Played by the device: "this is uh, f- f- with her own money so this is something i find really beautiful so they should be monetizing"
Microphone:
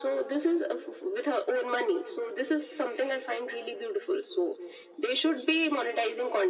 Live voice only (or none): none